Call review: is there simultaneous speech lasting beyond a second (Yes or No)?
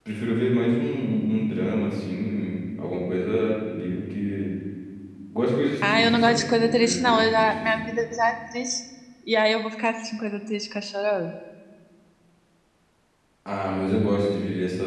Yes